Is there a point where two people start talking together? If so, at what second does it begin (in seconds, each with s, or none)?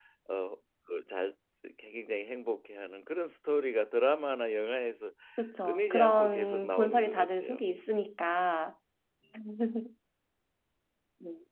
5.6 s